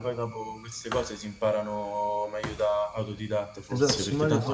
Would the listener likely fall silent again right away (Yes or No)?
No